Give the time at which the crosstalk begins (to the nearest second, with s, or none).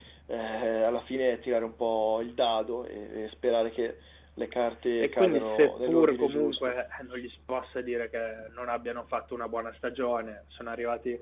5 s